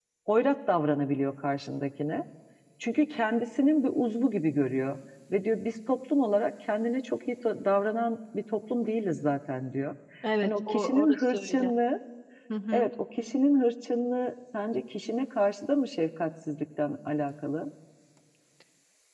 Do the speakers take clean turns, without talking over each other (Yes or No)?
No